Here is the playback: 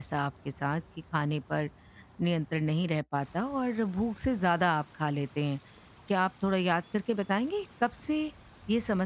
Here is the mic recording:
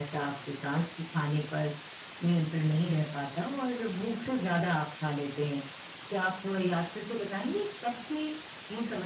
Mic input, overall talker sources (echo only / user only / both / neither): echo only